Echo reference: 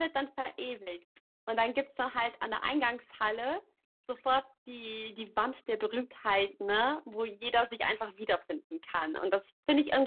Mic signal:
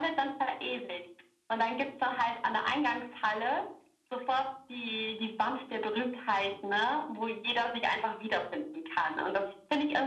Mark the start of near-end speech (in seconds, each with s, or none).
none